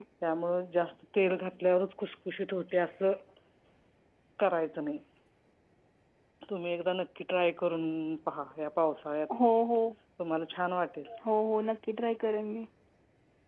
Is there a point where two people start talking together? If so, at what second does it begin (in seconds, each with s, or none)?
none